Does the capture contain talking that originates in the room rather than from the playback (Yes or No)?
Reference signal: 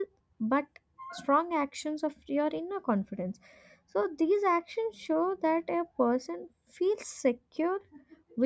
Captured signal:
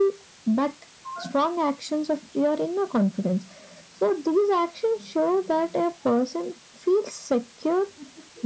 No